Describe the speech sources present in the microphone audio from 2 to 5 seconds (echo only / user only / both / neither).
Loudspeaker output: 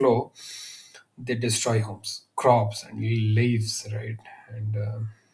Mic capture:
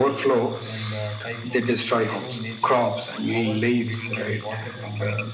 both